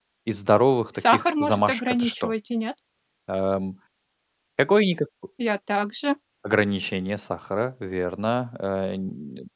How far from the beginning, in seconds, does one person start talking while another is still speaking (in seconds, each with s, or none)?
0.9 s